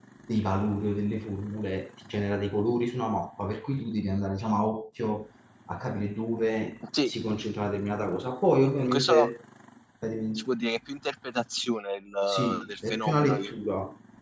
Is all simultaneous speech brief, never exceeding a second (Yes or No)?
No